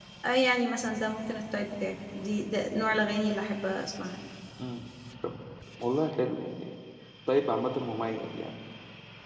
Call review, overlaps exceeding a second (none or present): none